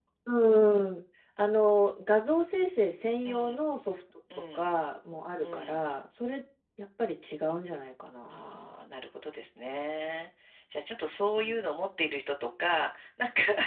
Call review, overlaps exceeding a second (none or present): none